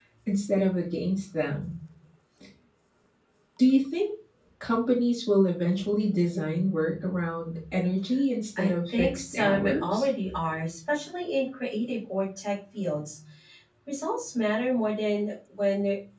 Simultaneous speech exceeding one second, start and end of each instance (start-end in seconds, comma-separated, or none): 8.6-10.0